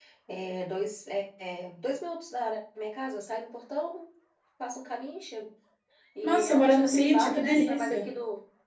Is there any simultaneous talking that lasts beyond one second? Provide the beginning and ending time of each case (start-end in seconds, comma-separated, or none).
6.2-8.1